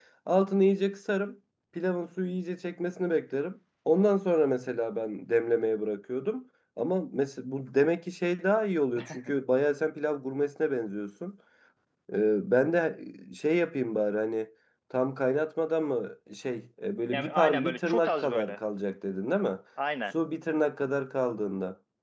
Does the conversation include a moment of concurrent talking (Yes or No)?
Yes